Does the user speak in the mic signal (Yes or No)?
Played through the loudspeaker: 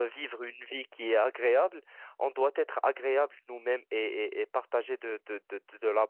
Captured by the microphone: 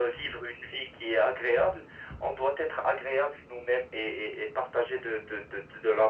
No